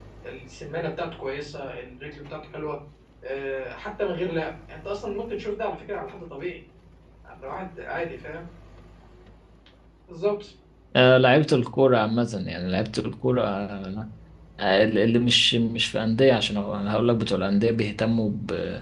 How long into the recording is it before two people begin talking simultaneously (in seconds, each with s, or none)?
none